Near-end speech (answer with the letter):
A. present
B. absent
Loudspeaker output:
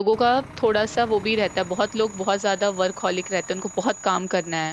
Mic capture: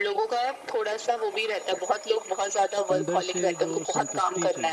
A